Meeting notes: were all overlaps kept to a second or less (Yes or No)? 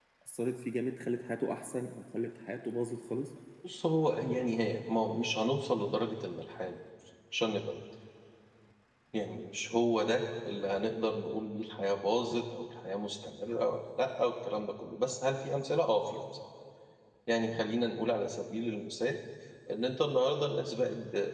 Yes